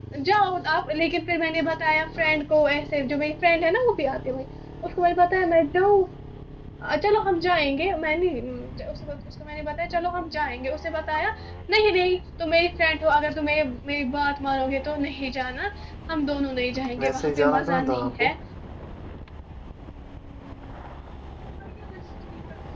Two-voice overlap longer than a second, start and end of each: 17.0-18.3

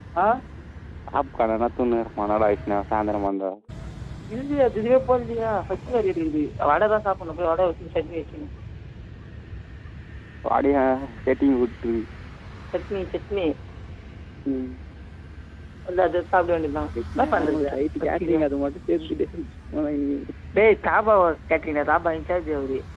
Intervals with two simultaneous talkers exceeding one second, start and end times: 17.2-18.4

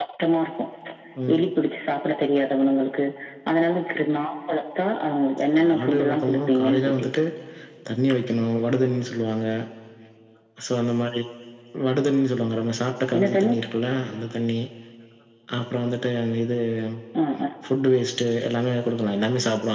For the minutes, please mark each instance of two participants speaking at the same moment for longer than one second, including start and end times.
5.6-7.1

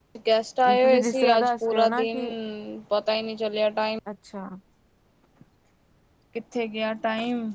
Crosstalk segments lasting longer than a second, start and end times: 0.7-2.2

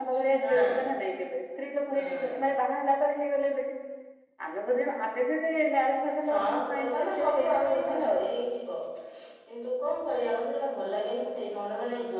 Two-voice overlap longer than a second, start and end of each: 6.3-8.2

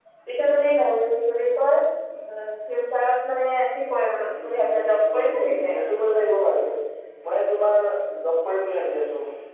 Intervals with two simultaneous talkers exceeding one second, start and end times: 4.4-5.8

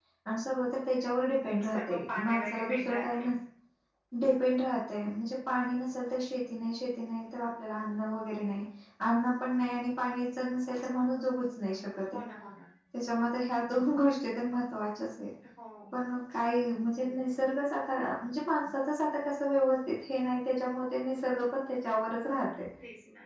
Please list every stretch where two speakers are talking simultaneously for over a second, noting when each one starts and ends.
1.6-3.2

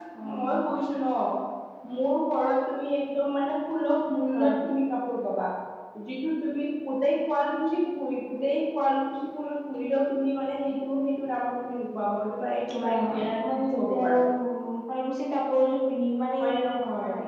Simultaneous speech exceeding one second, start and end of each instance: 12.8-14.2

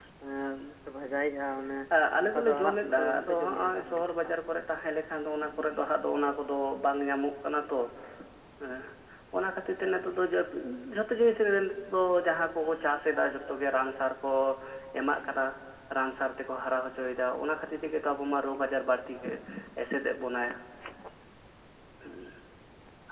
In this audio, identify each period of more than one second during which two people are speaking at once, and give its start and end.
2.2-4.3

